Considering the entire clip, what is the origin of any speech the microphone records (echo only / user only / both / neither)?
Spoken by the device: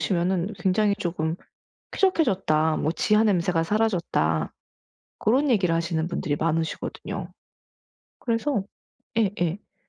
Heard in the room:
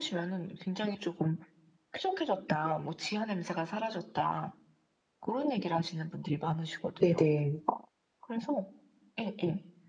both